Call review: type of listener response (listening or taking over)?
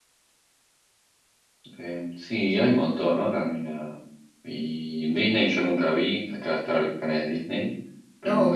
taking over